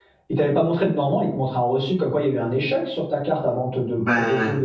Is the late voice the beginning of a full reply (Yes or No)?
Yes